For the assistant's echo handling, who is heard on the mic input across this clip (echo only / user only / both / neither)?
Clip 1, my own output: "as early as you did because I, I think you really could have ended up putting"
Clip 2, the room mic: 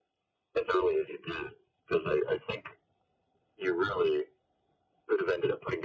echo only